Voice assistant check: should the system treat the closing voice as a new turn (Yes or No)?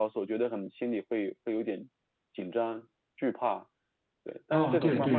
Yes